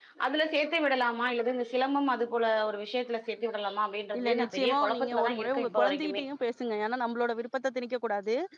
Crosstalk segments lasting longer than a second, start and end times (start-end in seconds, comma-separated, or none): 4.2-6.2